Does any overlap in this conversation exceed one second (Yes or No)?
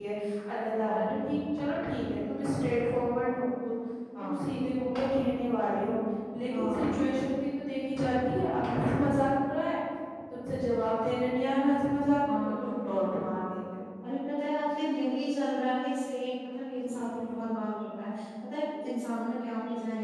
No